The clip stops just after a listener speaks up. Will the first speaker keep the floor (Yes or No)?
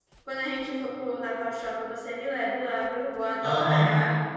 No